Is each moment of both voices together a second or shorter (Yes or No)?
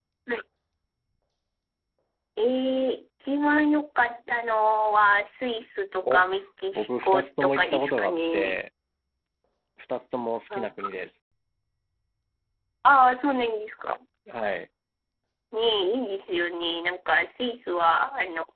No